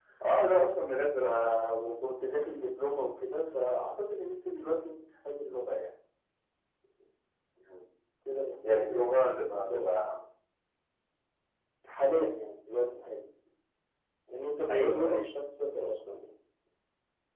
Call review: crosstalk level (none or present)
present